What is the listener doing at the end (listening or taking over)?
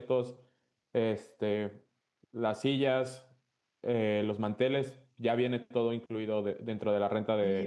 taking over